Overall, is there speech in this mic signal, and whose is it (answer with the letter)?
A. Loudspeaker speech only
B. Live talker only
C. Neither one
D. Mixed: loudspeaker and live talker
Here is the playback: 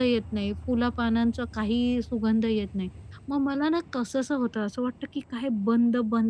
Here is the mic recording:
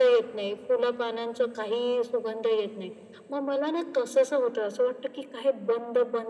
A